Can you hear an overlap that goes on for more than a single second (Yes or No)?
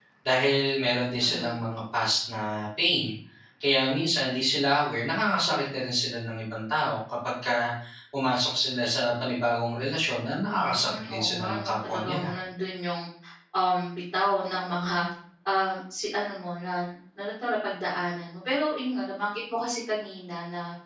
Yes